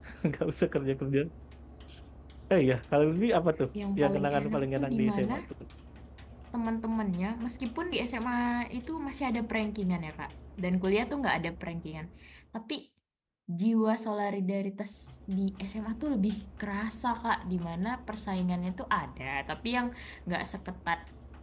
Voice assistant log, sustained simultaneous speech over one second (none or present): present